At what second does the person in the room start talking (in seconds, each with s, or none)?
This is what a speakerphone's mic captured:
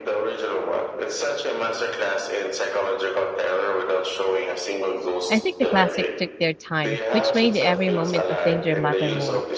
5.3 s